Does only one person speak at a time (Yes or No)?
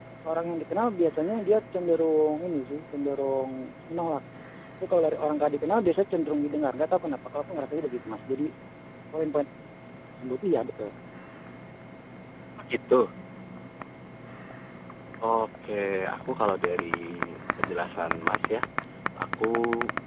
Yes